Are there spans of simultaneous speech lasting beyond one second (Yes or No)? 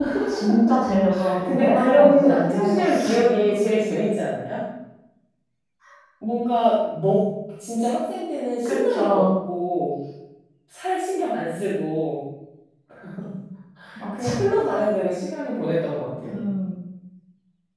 Yes